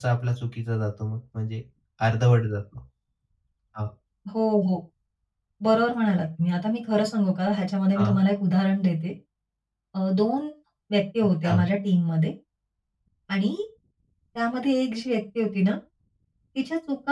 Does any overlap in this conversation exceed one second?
No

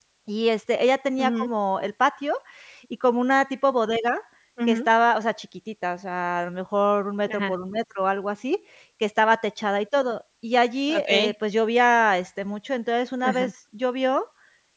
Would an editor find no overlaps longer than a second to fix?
Yes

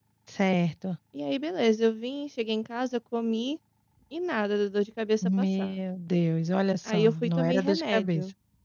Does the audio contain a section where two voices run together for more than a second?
Yes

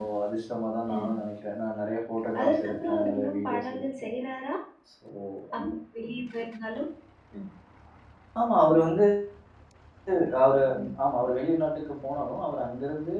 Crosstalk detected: Yes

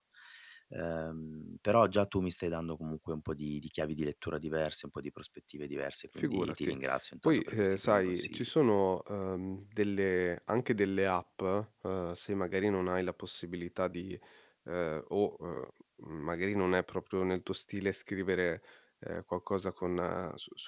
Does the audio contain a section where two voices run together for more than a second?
Yes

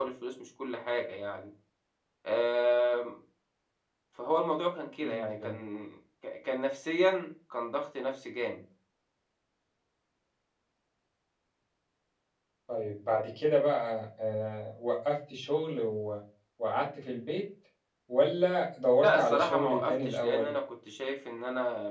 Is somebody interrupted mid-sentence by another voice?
Yes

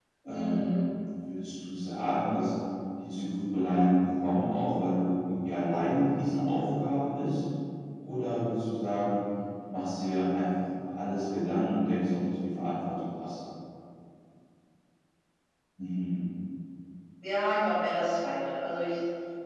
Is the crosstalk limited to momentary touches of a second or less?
Yes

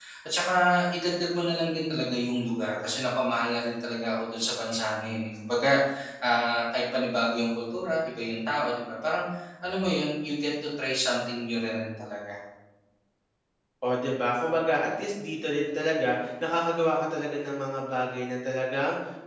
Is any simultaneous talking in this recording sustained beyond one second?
No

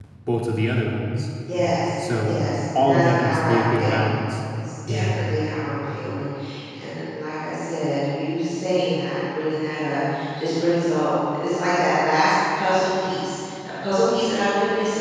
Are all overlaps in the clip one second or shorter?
No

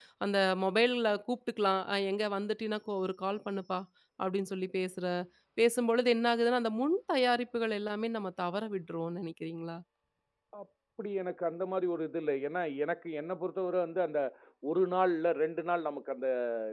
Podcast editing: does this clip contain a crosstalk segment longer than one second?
No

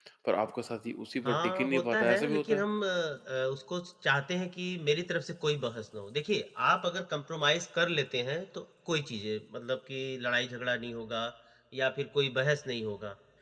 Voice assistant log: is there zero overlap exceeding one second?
No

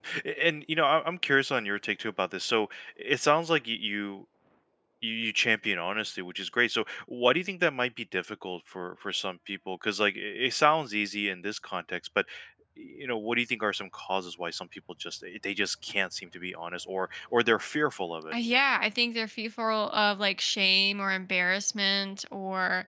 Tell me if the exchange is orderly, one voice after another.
Yes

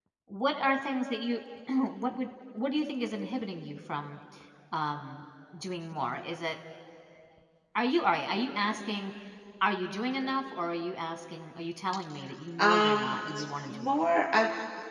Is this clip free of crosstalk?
No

